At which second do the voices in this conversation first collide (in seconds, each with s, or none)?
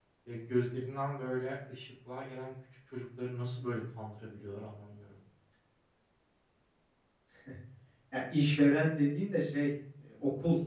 none